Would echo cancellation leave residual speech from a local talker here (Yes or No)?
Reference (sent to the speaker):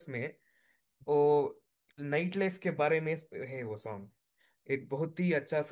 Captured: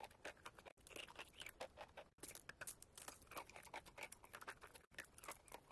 No